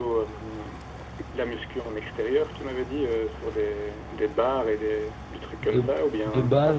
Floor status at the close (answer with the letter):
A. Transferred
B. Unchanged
A